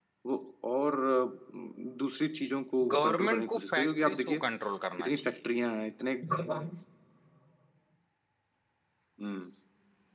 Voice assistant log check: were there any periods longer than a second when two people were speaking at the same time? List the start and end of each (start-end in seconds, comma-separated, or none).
2.9-4.4